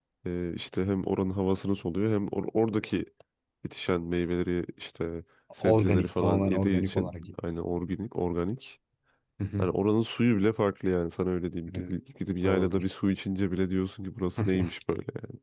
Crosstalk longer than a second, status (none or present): present